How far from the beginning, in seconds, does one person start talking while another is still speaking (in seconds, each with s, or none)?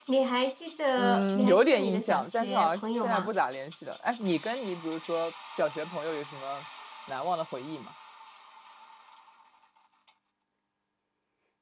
1.0 s